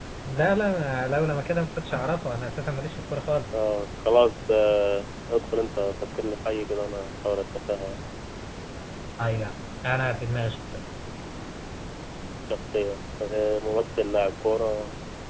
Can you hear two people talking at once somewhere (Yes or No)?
No